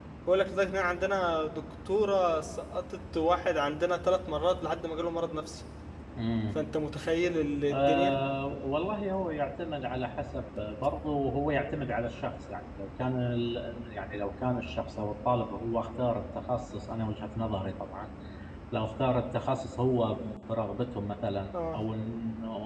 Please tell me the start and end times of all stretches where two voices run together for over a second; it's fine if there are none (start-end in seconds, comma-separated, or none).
none